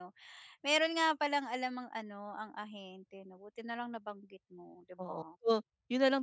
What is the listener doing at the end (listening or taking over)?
taking over